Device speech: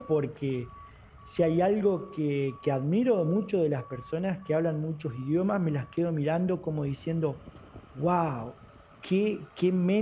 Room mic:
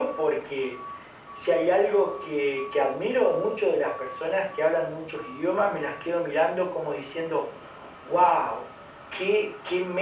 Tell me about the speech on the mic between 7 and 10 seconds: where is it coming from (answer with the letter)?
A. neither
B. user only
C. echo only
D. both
C